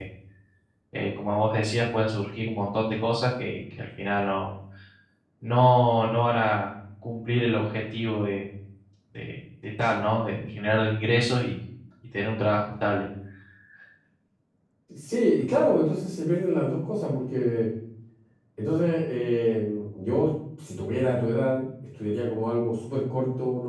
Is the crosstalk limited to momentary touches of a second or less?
Yes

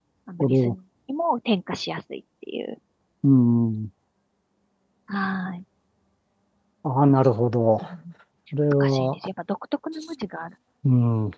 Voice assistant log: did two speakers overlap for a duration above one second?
No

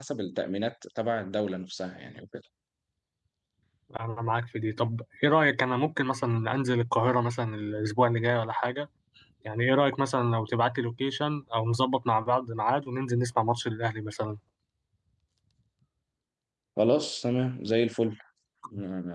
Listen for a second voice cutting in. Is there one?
No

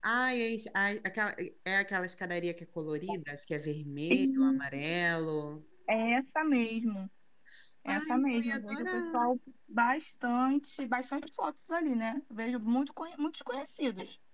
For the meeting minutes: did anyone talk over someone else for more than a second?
Yes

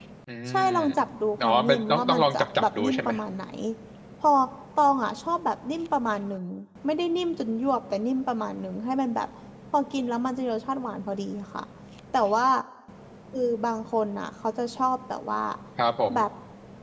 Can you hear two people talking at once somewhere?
Yes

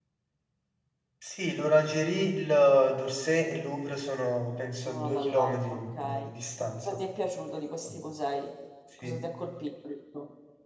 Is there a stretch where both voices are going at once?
Yes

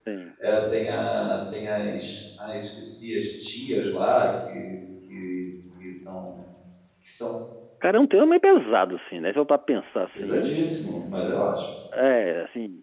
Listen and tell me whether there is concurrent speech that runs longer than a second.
No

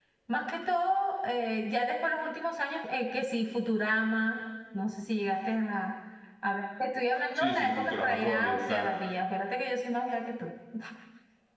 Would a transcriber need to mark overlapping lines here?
Yes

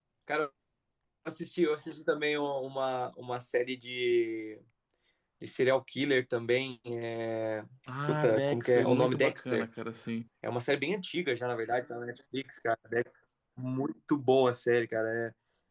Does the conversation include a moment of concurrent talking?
Yes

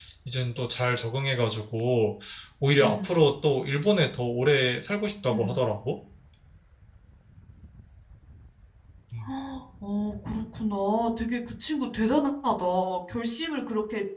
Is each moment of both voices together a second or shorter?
Yes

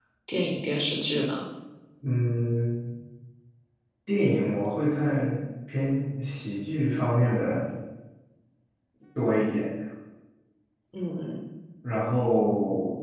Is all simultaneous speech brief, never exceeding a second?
Yes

